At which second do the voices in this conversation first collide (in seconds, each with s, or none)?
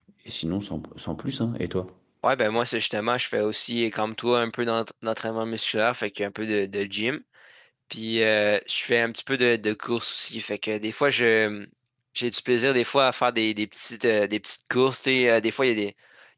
none